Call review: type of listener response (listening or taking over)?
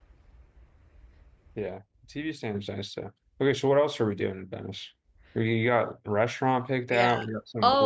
taking over